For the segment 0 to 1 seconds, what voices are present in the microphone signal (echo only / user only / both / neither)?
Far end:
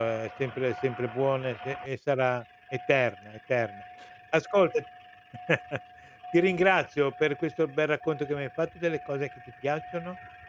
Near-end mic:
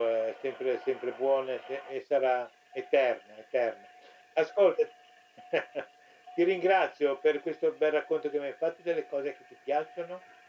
echo only